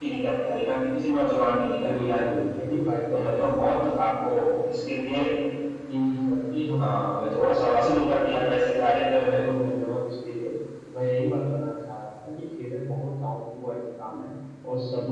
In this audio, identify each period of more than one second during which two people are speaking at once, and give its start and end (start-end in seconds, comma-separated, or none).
3.1-4.5